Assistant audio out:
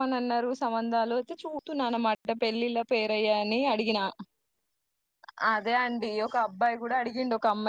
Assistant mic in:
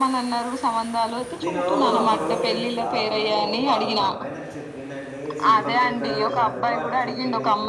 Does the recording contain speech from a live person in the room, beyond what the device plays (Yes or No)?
Yes